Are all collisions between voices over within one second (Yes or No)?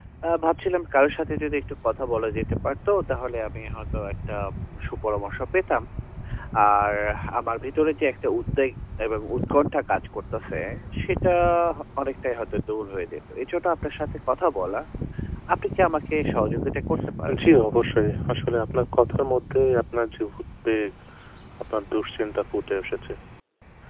Yes